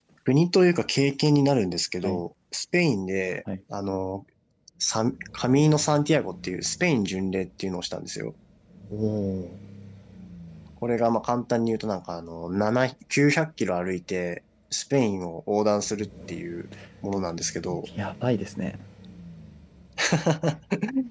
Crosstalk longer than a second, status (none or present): none